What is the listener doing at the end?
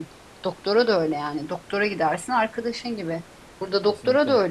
listening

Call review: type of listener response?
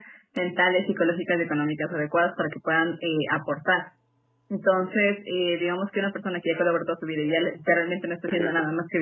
listening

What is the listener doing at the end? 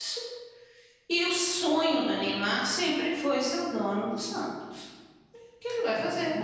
taking over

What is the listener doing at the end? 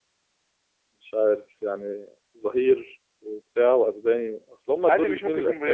taking over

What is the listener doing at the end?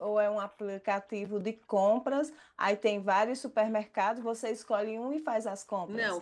taking over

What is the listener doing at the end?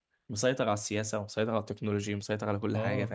taking over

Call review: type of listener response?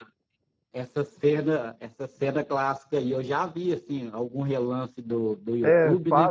taking over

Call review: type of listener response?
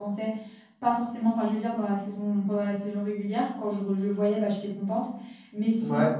listening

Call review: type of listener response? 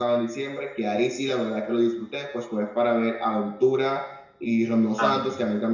listening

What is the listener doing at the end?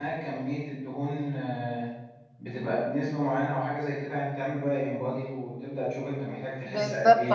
taking over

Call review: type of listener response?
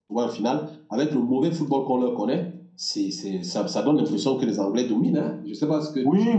taking over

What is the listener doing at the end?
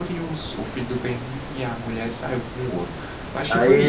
taking over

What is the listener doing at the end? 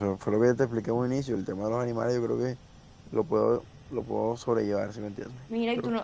taking over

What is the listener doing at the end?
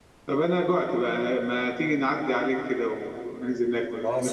taking over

